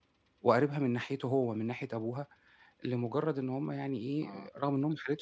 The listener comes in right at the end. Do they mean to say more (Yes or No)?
No